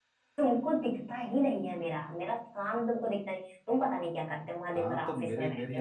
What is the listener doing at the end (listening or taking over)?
taking over